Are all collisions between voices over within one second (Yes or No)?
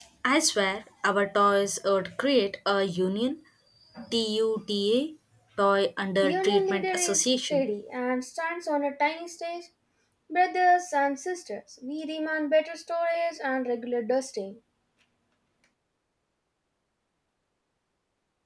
No